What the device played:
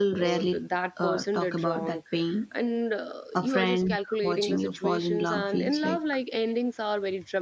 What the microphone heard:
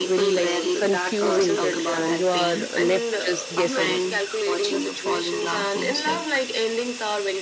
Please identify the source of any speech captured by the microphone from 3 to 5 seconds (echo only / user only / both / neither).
both